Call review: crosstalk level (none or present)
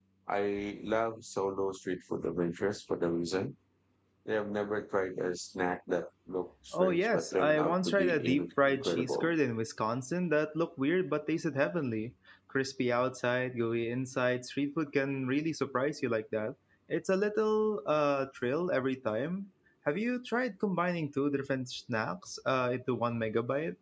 present